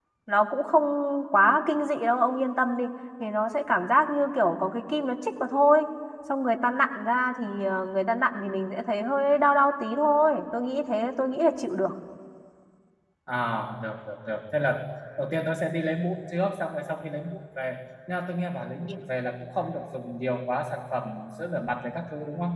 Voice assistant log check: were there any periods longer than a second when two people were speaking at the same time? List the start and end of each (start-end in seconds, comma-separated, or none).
none